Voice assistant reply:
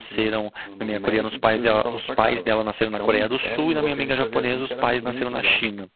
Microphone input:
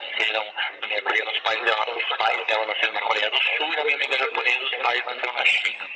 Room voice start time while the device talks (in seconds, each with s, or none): none